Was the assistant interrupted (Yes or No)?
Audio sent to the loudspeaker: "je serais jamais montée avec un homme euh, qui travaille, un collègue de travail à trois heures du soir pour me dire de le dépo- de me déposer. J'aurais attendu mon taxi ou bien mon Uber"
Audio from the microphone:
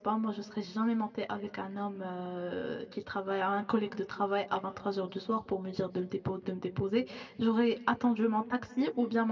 No